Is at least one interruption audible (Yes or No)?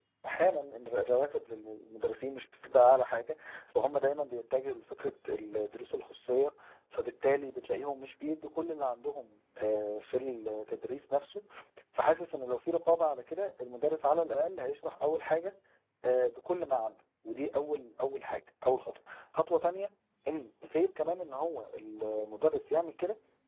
No